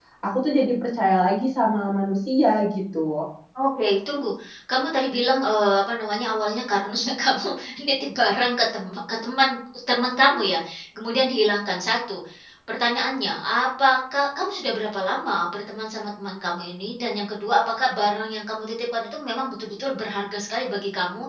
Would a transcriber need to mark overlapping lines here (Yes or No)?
No